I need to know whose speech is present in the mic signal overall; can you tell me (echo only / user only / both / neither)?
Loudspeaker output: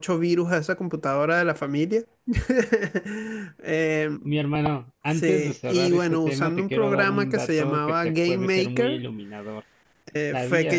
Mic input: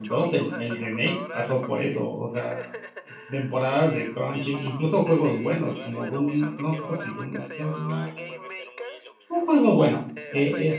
both